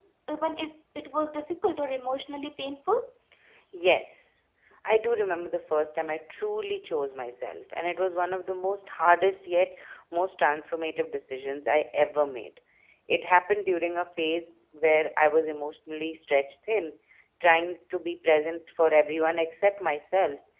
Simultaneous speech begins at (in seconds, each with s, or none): none